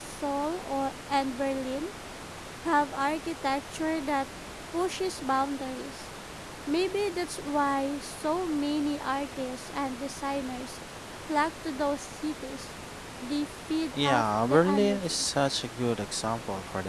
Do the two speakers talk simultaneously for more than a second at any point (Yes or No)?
Yes